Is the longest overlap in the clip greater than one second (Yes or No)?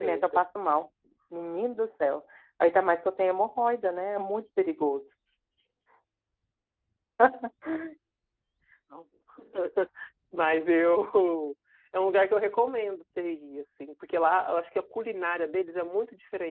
No